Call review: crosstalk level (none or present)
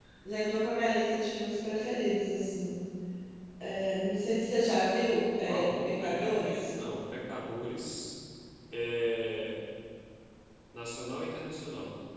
present